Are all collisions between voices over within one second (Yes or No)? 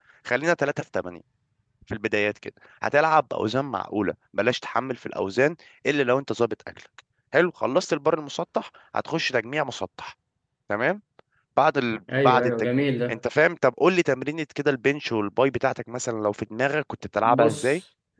Yes